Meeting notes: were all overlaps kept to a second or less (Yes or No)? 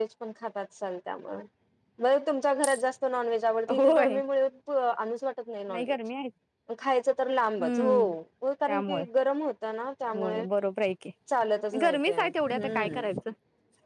No